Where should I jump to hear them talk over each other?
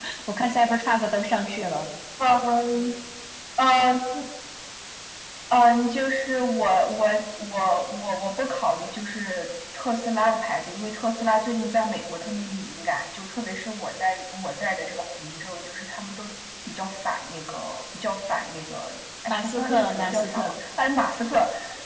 19 s

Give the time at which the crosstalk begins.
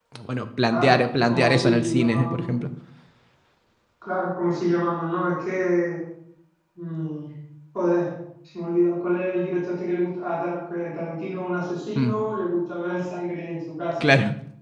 1 s

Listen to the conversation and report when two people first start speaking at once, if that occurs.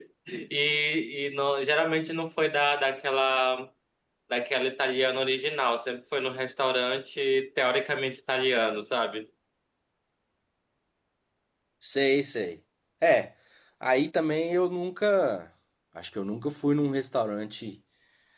none

